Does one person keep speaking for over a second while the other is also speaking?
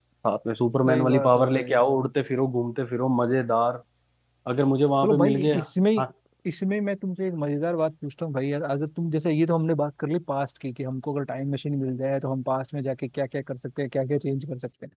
Yes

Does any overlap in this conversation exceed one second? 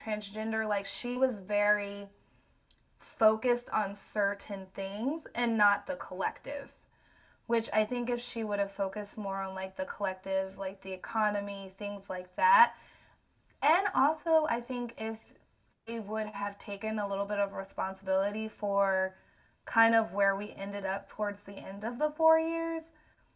No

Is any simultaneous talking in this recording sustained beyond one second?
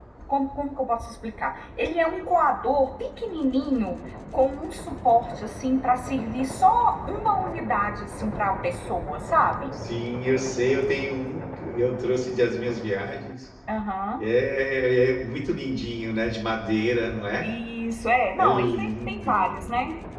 Yes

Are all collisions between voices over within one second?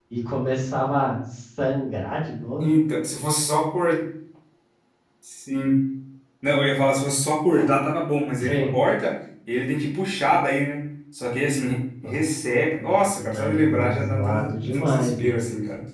No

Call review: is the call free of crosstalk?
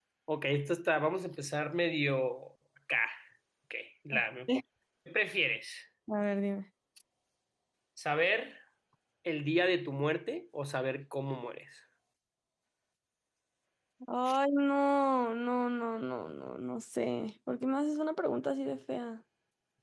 Yes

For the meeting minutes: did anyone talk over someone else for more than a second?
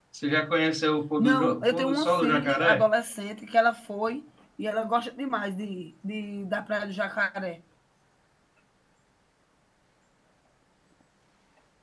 Yes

